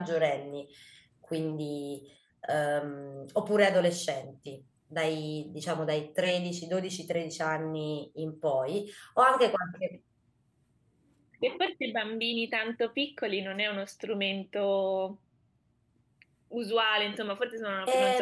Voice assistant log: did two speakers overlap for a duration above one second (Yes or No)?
No